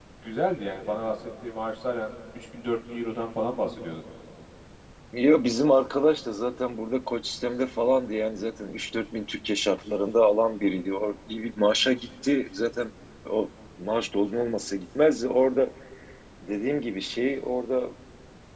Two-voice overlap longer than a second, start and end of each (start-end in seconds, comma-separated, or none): none